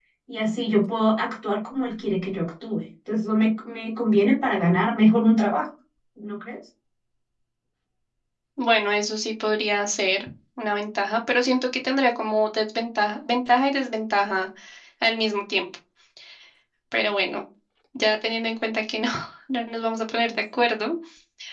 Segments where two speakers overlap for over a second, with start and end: none

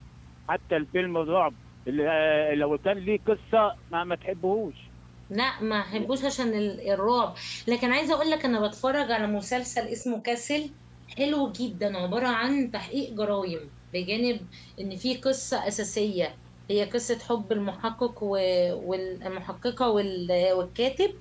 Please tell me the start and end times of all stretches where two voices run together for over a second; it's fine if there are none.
none

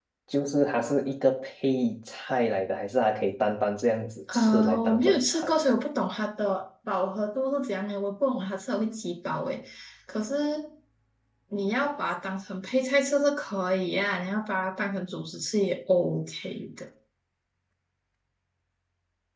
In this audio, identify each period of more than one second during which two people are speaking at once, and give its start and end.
4.3-5.6

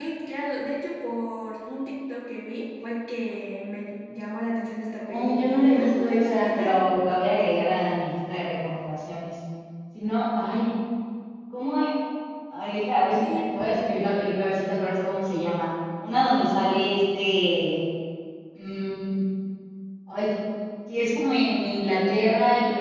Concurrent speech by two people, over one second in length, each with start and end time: 5.0-6.8

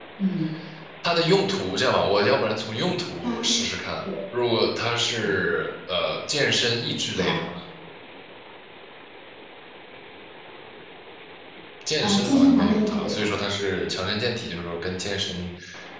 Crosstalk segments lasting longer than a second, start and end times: 12.0-13.4

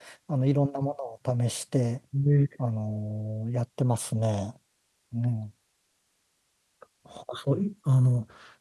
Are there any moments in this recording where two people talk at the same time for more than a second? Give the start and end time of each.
none

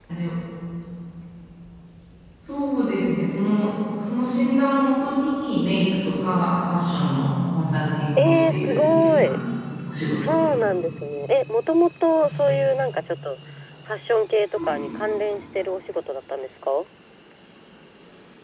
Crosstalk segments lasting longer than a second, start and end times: 8.2-9.4

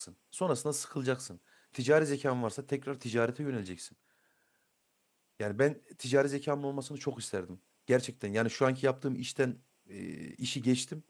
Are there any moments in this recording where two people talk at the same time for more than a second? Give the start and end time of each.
none

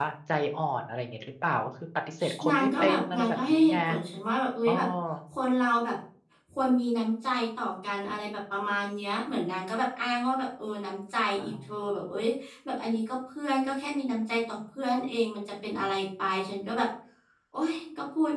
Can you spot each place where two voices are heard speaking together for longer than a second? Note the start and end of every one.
2.5-3.8

